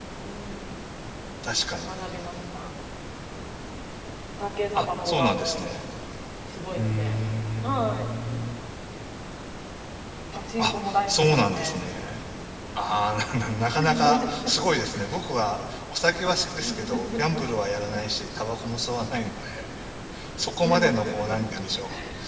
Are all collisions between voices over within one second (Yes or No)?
No